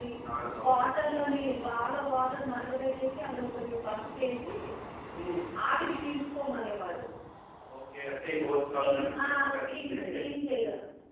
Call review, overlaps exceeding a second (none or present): present